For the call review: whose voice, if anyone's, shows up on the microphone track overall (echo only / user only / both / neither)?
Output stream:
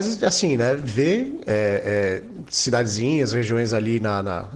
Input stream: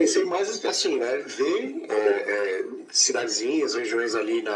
echo only